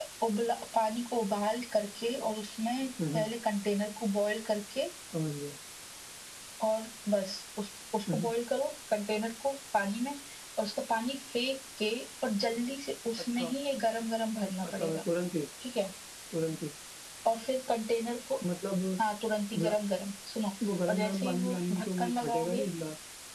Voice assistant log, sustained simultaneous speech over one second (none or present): present